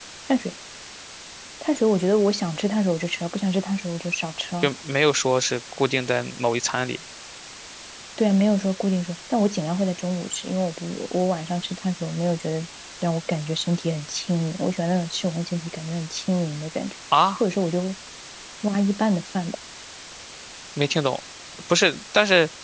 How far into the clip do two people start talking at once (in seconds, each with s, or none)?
none